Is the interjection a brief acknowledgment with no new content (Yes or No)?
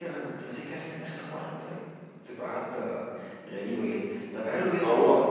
Yes